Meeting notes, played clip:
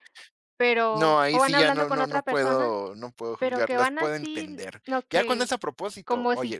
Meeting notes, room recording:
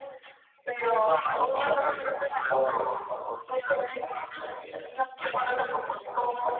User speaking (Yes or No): No